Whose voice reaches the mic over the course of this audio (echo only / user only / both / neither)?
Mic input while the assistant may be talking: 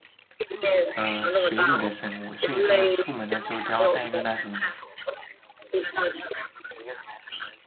both